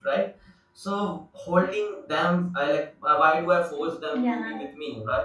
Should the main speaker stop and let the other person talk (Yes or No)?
No